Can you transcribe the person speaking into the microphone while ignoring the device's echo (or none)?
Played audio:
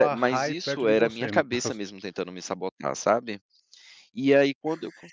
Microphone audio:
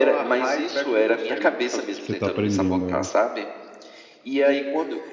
que você está aprendendo, é.